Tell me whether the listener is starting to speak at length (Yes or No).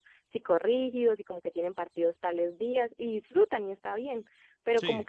No